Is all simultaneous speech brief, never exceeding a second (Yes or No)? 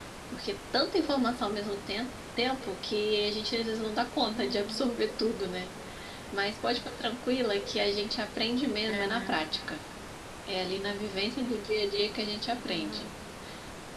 Yes